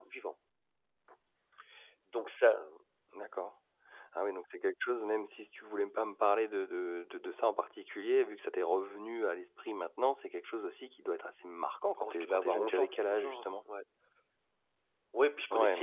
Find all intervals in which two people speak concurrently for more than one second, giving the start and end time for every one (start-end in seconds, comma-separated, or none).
12.0-13.6